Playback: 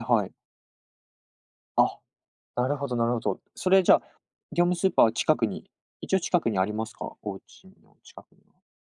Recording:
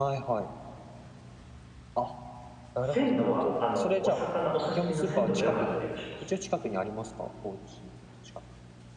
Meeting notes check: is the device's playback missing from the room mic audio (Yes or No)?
No